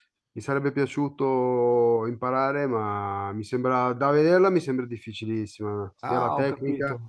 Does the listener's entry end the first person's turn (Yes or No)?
Yes